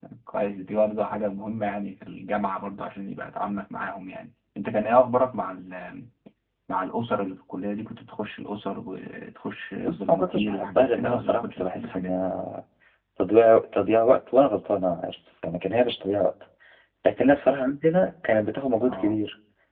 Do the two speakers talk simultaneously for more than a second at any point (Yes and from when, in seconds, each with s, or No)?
Yes, from 9.8 s